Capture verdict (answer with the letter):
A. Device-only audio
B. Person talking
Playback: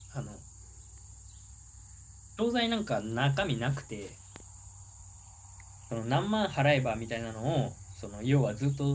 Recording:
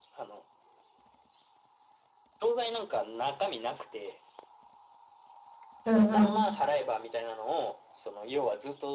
B